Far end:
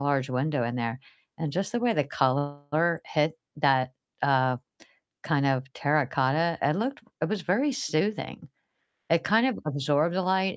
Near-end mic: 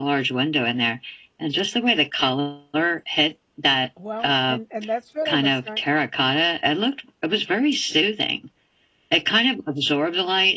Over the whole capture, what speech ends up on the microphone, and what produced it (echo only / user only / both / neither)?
both